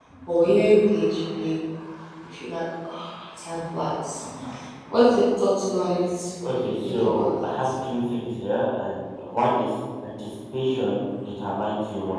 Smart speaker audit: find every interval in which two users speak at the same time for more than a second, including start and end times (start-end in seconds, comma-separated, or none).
6.4-7.7